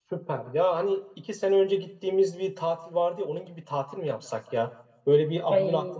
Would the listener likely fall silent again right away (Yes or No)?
Yes